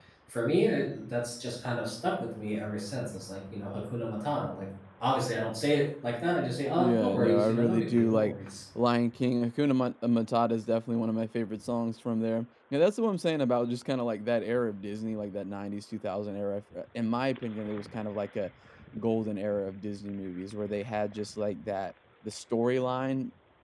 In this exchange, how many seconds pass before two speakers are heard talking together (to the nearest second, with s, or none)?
7 s